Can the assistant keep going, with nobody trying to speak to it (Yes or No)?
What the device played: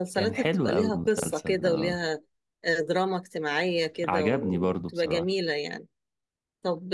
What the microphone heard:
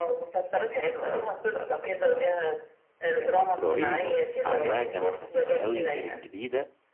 No